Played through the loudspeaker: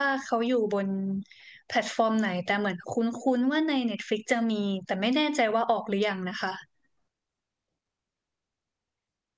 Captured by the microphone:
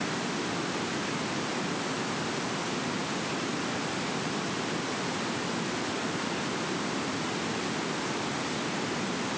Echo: none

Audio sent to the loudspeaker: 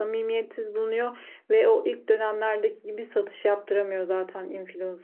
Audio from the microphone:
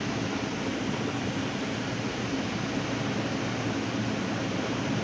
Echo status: none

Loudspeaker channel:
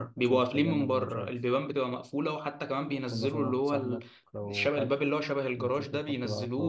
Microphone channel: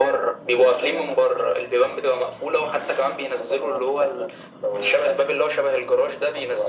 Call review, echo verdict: present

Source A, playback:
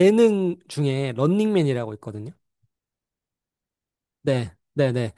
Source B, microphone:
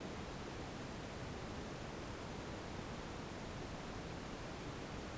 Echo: none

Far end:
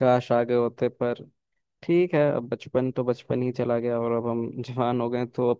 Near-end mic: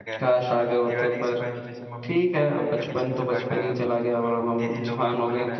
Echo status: present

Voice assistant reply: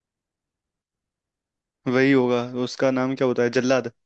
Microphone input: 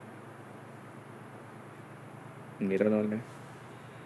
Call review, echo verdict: none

